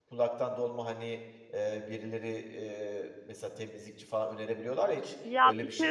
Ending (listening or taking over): taking over